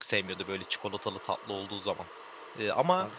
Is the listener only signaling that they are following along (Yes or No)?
Yes